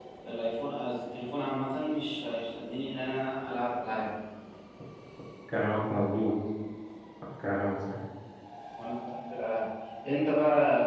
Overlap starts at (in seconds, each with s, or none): none